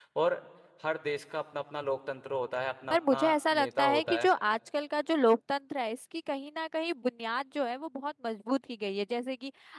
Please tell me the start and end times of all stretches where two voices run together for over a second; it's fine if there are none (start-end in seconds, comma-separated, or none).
2.9-4.3